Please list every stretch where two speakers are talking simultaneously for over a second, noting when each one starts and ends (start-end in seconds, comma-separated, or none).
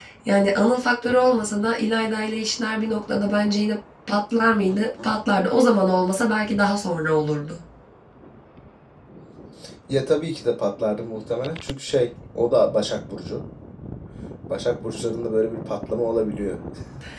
none